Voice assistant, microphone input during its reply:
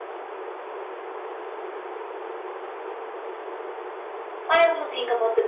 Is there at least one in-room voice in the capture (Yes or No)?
Yes